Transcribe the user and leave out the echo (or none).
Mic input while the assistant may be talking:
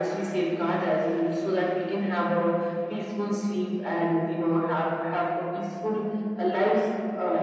none